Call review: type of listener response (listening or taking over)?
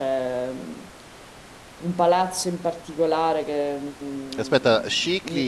taking over